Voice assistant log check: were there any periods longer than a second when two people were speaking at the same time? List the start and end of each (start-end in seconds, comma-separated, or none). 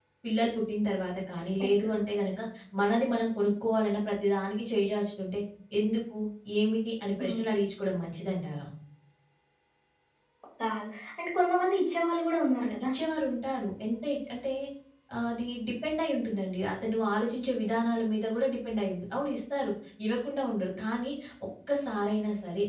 none